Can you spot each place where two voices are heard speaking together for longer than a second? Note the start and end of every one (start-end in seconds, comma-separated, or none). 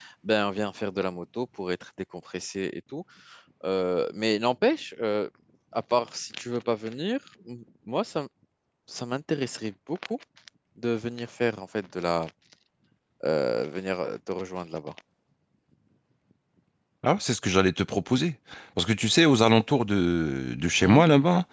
none